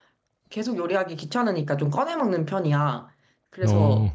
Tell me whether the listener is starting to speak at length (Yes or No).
No